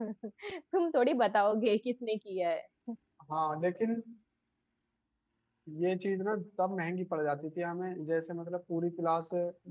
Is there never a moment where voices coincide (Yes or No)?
Yes